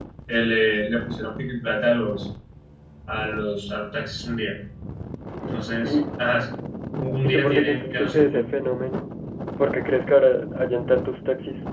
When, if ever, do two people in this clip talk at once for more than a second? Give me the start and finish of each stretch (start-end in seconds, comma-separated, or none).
7.2-8.4